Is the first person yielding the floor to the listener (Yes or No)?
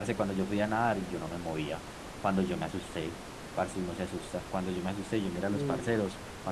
No